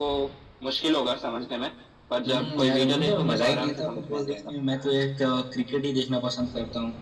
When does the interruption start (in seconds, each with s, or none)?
2.3 s